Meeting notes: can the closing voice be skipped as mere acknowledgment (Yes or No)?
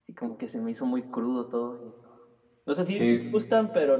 Yes